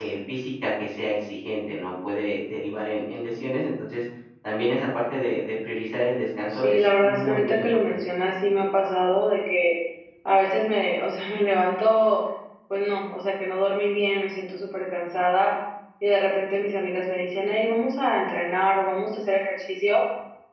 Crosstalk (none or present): present